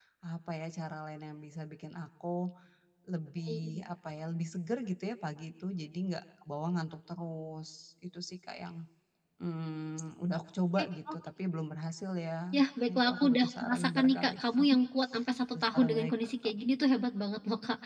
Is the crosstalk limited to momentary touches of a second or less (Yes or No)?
No